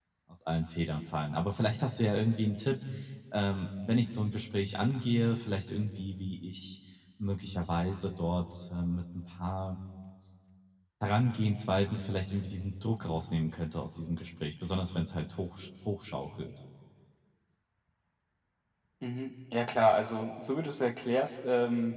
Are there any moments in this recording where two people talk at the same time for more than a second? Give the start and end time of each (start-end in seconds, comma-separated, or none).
none